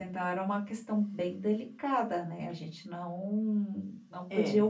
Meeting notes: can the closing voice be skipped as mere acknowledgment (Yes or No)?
Yes